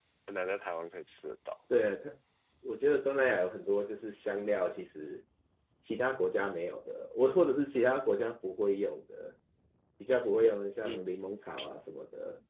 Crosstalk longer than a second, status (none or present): none